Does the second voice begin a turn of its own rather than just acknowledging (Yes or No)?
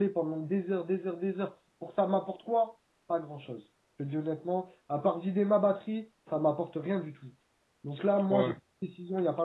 No